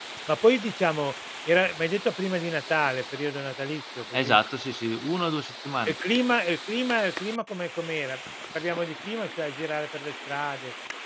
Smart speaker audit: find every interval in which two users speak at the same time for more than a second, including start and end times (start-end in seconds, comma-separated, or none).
none